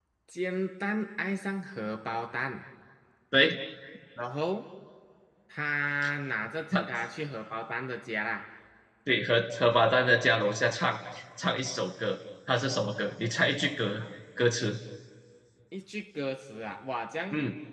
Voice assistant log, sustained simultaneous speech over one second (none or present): none